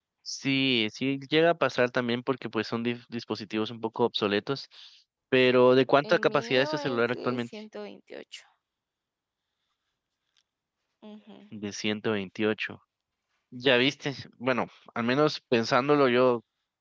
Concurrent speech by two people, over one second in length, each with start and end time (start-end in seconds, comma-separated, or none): 6.0-7.4